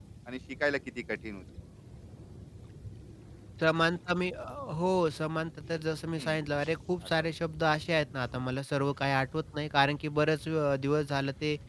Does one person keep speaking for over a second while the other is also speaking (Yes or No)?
No